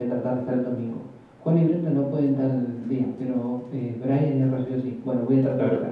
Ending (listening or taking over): listening